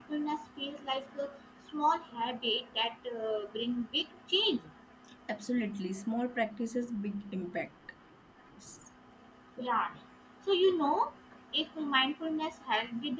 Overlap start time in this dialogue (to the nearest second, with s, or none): none